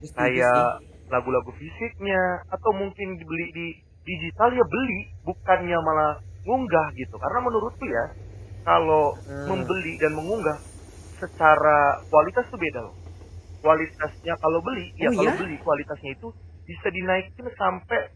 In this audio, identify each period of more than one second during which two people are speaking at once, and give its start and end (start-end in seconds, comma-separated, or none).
none